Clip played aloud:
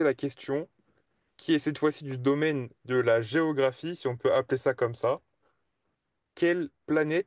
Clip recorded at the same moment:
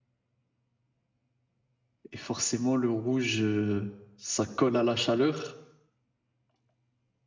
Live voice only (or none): Et forcément, le rouge, euh, ça colle à la chaleur.